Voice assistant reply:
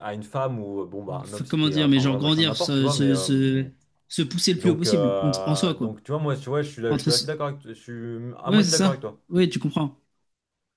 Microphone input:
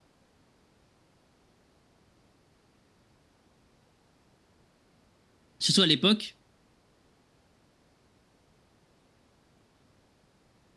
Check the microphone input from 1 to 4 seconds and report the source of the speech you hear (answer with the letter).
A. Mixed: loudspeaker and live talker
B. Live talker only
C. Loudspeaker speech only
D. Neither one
D